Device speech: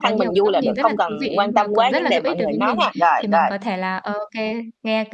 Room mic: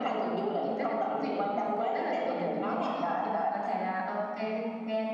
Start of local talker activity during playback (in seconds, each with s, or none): none